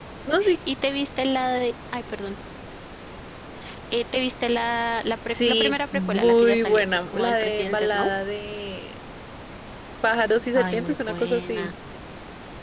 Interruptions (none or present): present